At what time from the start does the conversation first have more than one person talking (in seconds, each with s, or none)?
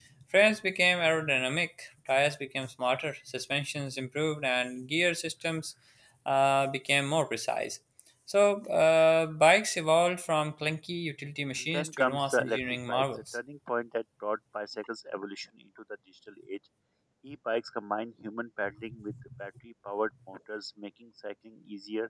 11.7 s